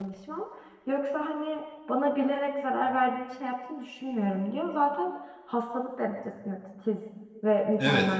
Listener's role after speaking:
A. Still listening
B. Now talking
B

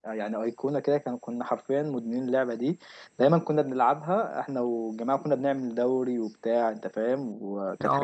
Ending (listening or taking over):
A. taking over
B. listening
B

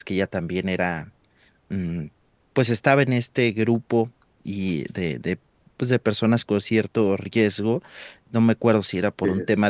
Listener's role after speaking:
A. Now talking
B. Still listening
B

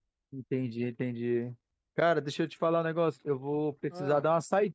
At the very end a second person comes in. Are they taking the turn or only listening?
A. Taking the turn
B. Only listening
B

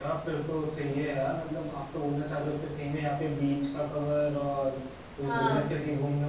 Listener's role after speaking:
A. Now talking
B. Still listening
B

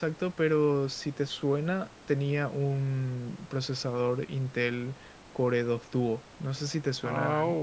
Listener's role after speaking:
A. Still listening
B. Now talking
B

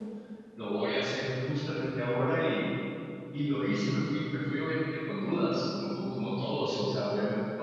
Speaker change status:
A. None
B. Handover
A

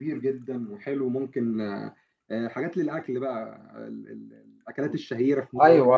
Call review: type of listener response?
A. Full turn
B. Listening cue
A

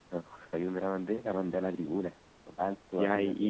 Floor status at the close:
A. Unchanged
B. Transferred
B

